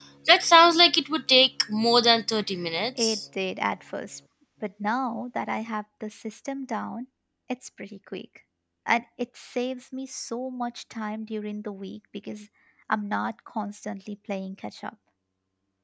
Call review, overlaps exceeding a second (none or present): none